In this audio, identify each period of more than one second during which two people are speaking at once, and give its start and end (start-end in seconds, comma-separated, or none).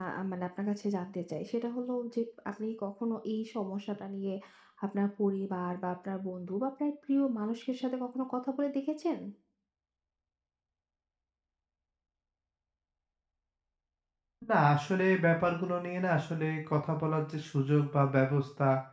none